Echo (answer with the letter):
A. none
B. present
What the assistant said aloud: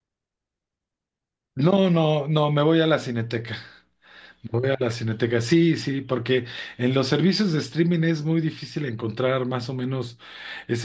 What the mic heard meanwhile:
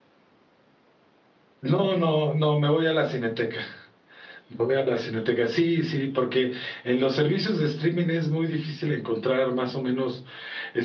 B